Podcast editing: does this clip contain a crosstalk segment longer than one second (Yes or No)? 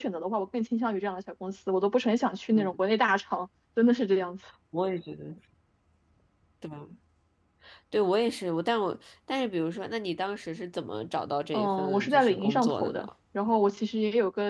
Yes